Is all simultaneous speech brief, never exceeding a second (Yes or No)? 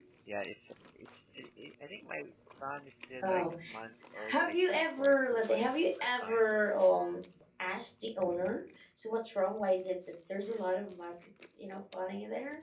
No